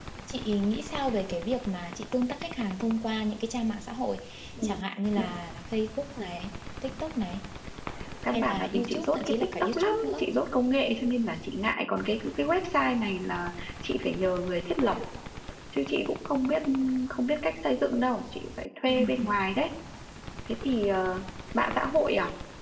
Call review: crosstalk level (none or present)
present